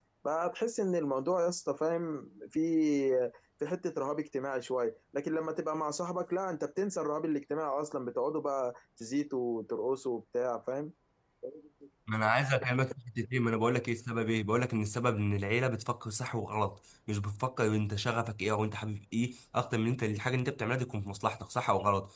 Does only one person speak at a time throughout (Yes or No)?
Yes